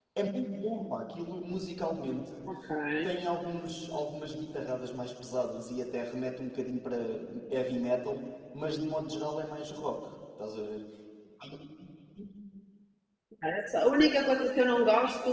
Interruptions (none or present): none